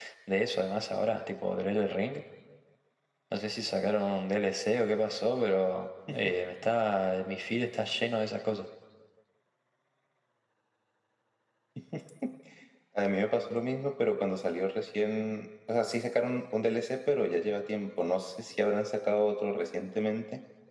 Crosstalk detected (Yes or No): No